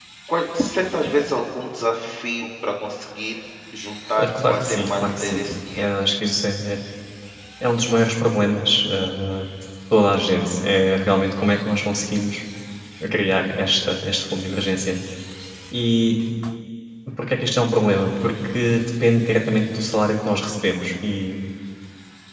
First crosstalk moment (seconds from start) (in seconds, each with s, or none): 4.2 s